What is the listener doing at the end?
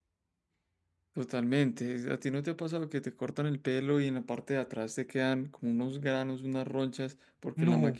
listening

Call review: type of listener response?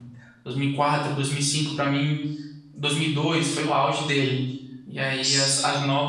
listening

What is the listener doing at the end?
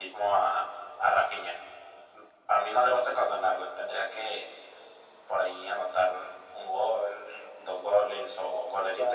taking over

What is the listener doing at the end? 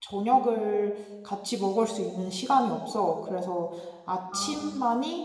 listening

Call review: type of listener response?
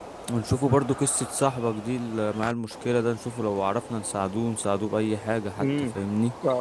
taking over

